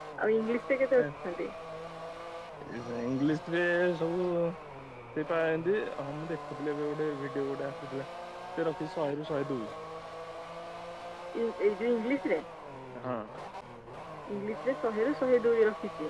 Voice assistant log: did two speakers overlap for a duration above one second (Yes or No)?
No